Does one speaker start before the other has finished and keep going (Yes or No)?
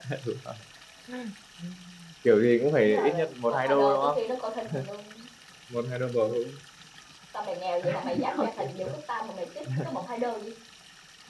Yes